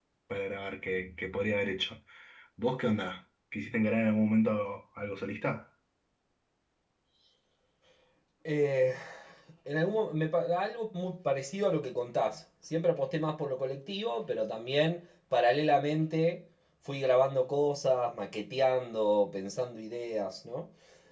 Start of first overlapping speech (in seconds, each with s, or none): none